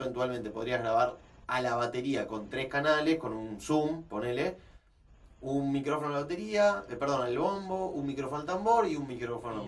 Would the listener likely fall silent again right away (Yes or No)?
No